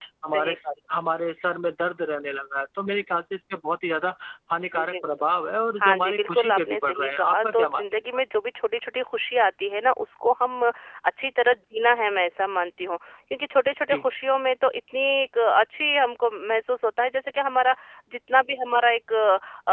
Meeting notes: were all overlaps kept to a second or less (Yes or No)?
No